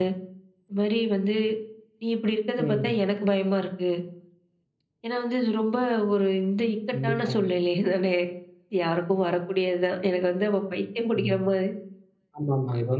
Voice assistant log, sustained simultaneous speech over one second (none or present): none